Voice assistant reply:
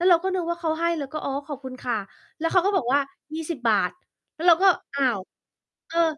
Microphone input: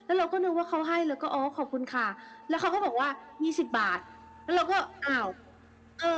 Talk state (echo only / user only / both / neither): echo only